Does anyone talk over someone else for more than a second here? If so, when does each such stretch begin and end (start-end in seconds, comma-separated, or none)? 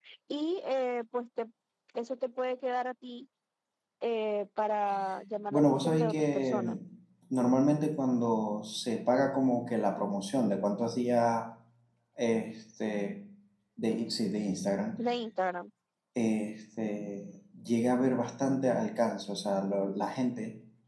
5.5-6.8